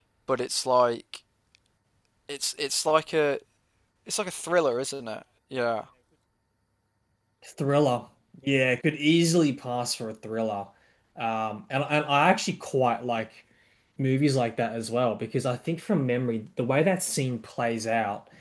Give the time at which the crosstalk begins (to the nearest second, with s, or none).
none